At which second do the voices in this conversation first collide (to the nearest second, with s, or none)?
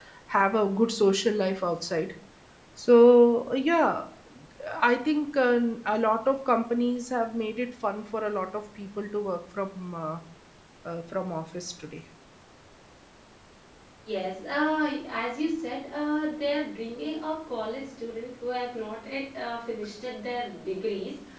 none